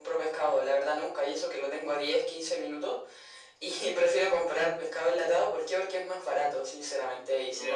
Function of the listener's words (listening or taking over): listening